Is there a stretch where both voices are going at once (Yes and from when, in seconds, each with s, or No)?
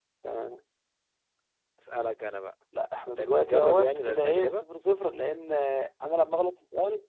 Yes, from 3.1 s